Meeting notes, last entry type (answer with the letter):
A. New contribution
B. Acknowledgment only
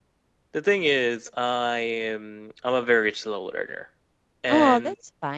A